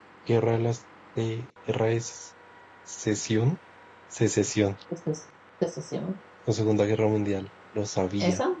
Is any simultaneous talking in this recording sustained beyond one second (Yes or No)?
No